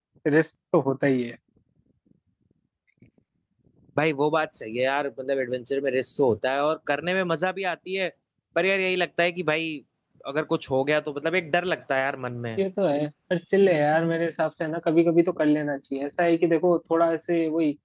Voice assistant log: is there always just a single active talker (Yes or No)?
Yes